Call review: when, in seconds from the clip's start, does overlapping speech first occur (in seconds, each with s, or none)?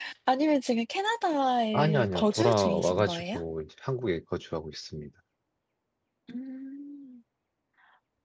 1.7 s